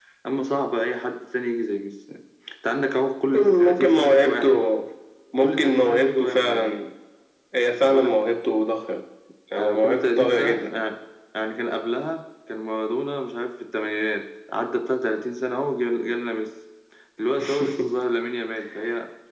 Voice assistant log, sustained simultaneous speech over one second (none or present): present